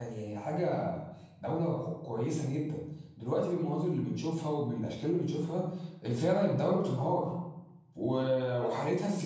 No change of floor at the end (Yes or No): Yes